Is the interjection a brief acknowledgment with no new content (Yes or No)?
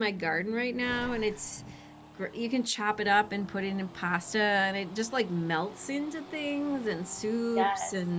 Yes